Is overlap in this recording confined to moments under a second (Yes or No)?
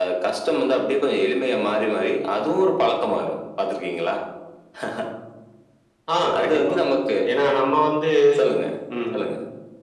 Yes